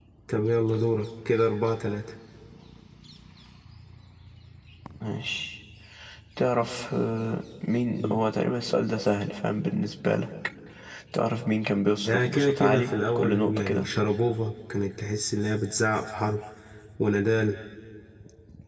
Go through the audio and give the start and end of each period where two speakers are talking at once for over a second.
12.1-13.9

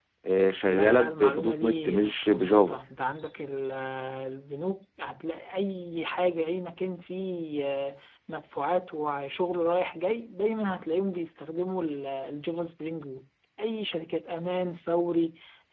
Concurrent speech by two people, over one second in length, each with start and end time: 0.7-2.8

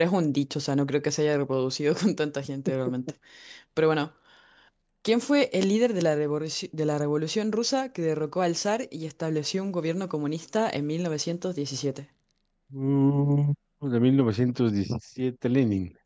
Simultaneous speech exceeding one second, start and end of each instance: none

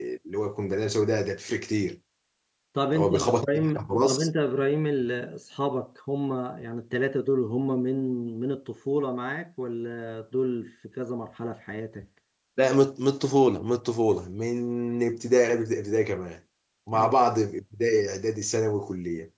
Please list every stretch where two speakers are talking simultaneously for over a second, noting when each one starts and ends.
2.9-4.3

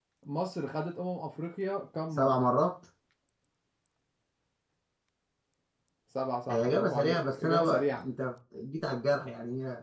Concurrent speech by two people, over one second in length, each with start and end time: 6.5-8.0

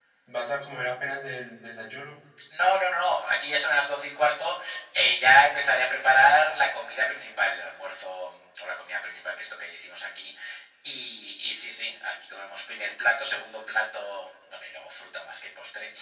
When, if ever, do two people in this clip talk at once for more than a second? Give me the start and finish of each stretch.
none

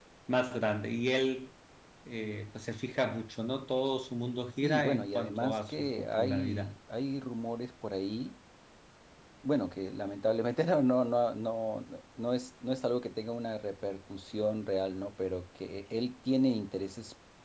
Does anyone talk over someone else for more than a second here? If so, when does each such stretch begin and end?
4.6-6.8

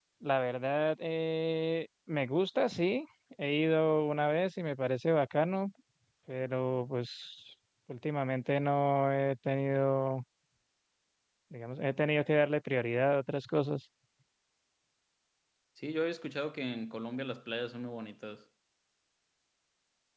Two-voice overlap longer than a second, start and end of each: none

